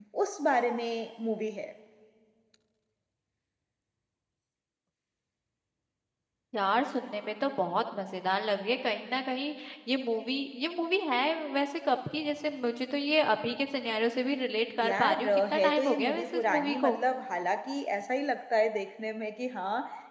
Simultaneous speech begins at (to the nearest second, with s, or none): 15 s